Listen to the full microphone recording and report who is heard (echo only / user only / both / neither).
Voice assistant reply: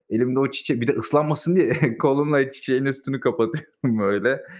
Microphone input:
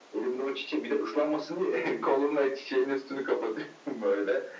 echo only